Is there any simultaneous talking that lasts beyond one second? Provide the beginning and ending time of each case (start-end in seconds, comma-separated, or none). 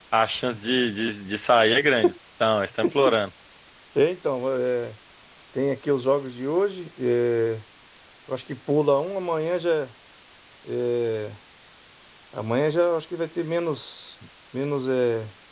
none